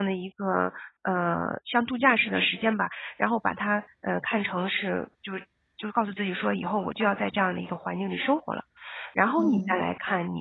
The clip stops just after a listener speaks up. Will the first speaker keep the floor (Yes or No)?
Yes